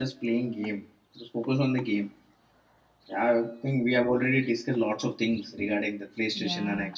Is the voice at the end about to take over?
Yes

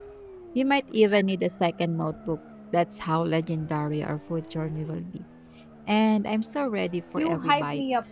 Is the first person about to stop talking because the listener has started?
Yes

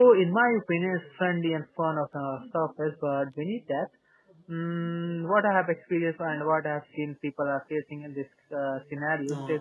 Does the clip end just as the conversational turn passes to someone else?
No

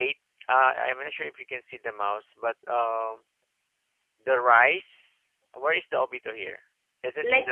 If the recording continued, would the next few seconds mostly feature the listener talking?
Yes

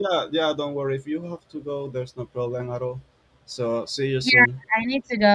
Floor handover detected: Yes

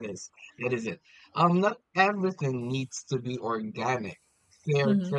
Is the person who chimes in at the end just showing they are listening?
Yes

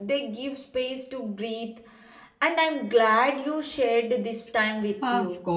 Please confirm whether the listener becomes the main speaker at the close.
Yes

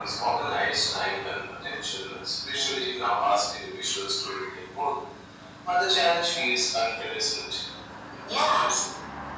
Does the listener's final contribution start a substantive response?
Yes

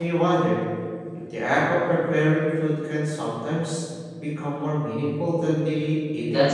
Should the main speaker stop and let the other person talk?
Yes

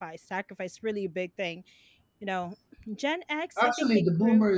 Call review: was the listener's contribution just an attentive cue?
No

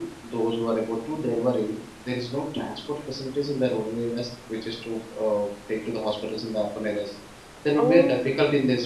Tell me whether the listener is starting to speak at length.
No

